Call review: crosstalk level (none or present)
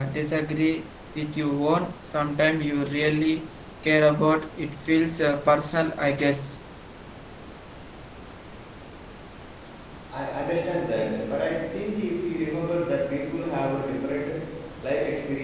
none